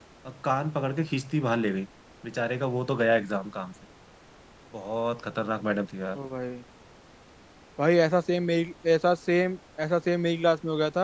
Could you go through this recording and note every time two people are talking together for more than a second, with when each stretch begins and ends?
none

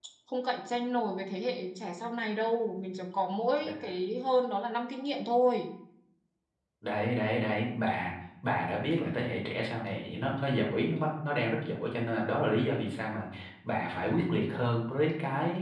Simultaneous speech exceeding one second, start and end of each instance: none

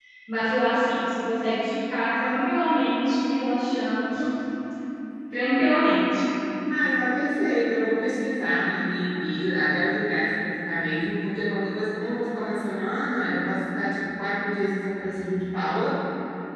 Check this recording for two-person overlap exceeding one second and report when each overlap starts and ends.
none

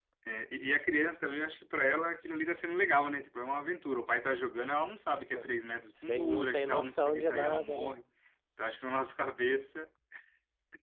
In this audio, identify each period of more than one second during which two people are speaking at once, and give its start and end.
6.0-7.9

